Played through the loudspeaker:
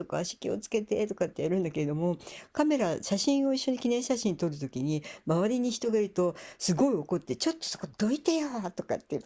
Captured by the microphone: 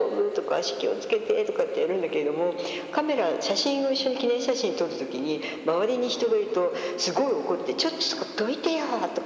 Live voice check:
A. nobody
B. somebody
A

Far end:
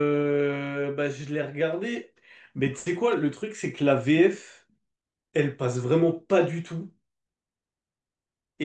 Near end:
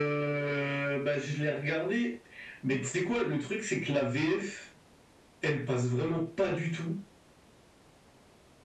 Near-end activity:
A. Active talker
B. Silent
B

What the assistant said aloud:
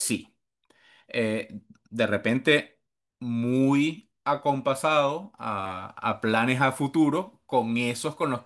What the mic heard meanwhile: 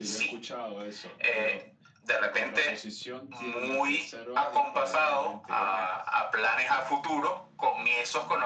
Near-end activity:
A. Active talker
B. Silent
A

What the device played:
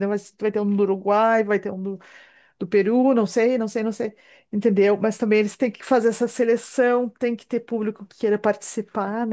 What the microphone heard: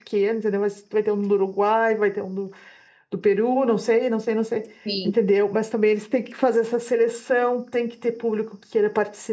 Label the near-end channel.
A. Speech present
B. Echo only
A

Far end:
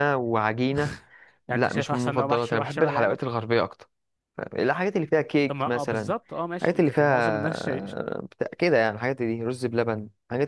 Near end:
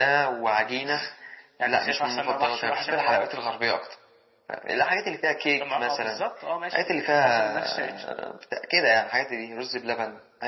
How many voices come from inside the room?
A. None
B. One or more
A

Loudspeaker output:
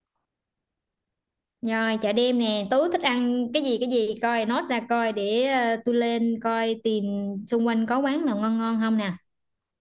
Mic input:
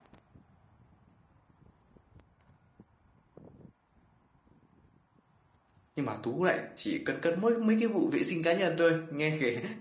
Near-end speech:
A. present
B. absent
A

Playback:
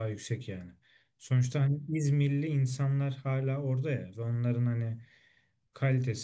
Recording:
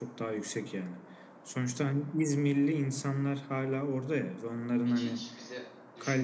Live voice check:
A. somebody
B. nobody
A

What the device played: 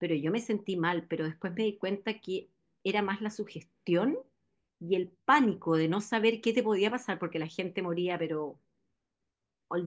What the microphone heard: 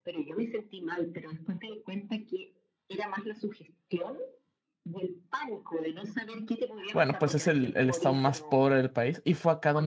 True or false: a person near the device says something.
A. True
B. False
A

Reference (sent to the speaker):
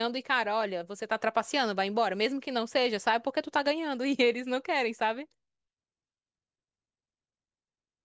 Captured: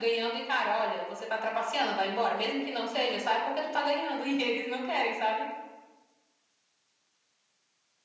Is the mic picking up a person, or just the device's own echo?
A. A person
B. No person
B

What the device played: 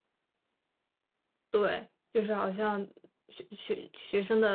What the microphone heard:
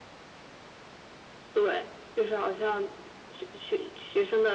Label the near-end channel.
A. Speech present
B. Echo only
B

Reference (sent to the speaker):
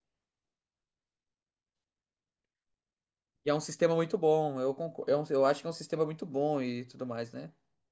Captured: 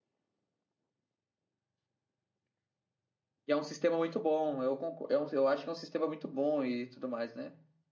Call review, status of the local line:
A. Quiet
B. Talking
A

